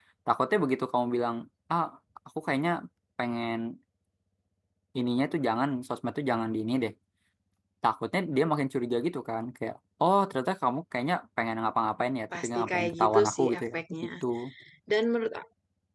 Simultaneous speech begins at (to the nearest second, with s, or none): 12 s